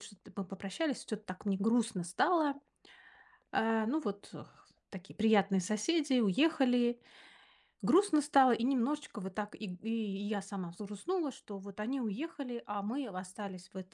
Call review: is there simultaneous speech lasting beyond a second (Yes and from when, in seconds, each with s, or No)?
No